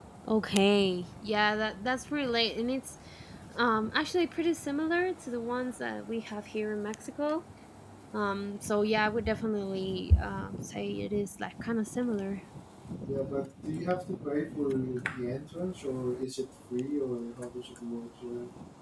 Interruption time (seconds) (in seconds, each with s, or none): none